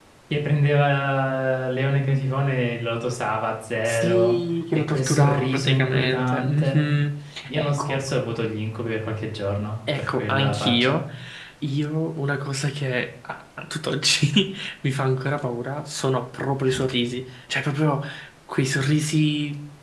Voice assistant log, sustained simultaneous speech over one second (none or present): present